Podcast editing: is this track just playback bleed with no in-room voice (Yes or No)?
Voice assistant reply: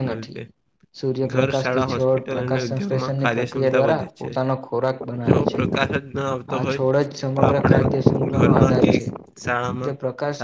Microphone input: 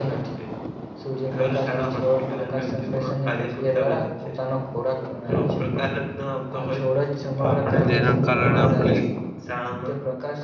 No